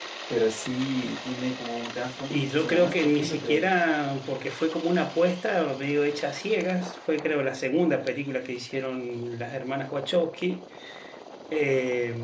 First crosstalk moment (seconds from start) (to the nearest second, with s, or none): 2 s